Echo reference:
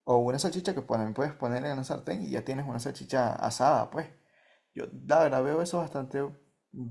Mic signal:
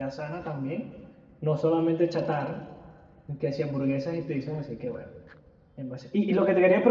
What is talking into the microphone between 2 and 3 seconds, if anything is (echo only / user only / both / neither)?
user only